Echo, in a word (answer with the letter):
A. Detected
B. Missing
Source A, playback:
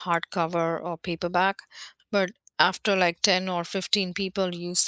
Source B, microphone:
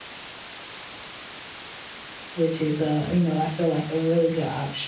B